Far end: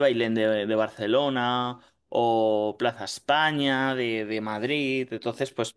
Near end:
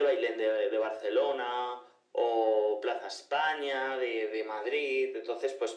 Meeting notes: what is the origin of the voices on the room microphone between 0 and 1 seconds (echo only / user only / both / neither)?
echo only